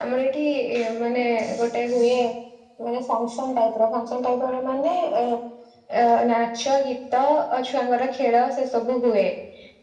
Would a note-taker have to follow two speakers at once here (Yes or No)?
No